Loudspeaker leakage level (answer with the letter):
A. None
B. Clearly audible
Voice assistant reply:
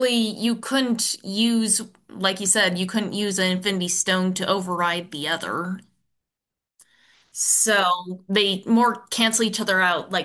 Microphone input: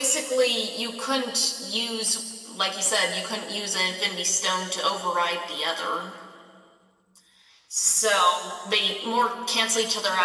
B